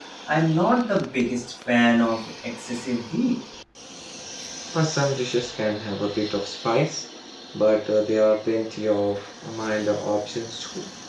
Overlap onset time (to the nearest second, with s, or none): none